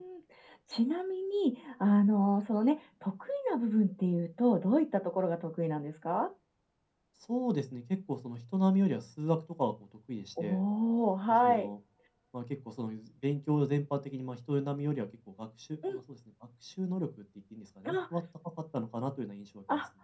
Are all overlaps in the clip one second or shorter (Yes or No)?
Yes